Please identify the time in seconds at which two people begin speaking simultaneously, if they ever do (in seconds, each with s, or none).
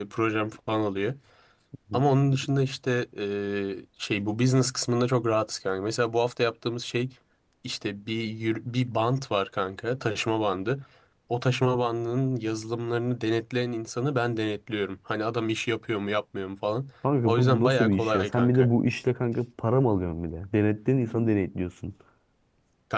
17.0 s